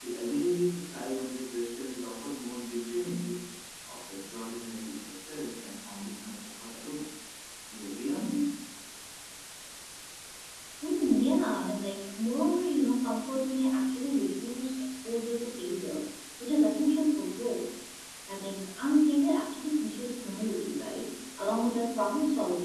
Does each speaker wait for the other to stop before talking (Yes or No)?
Yes